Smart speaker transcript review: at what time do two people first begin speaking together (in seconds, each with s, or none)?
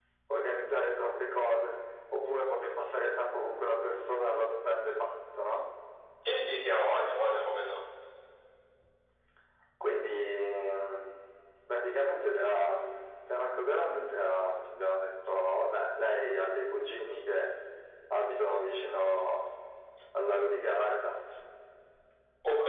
none